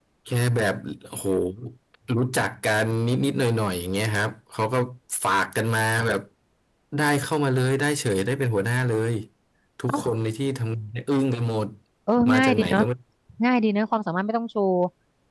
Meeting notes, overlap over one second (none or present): none